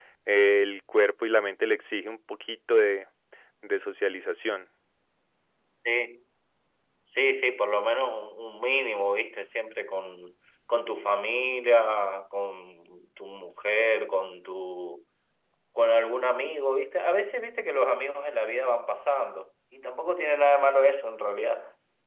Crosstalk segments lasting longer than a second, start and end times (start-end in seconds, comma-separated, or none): none